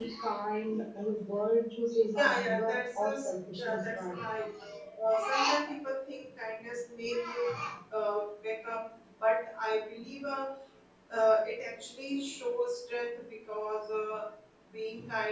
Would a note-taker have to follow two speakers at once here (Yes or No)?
Yes